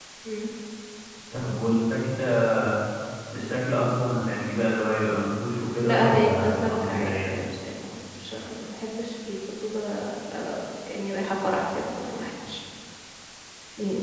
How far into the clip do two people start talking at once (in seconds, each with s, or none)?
5.8 s